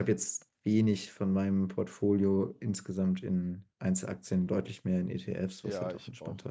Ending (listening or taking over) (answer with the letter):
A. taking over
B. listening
A